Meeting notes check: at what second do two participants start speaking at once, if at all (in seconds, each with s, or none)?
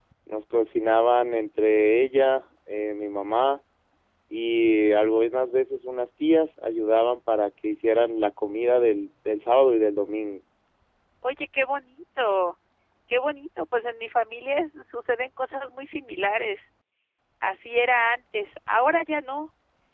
none